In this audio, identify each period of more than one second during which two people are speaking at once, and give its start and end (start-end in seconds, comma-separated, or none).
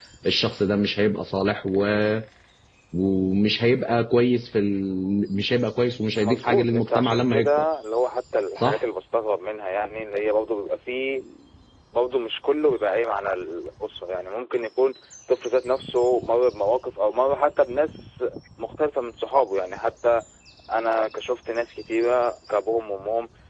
6.2-7.7